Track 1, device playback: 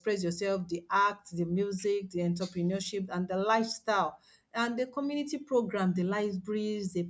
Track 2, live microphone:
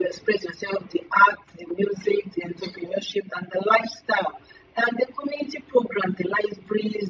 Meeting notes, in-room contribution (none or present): none